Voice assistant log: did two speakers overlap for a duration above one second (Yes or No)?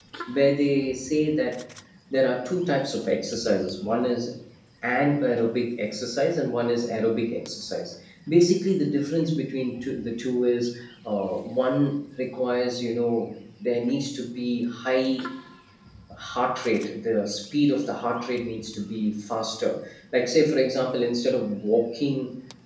No